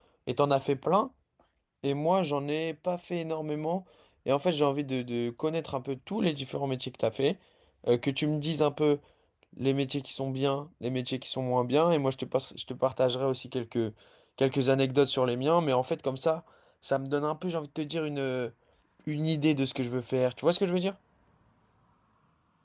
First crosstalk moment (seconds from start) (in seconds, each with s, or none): none